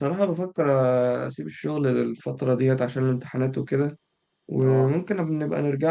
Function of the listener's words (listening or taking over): listening